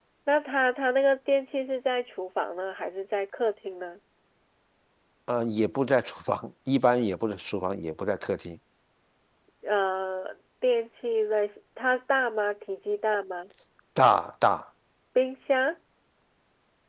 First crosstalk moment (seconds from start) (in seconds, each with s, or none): none